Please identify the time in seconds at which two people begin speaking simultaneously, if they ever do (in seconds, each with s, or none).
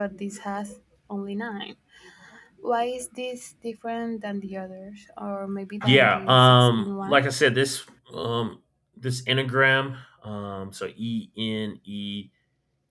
5.8 s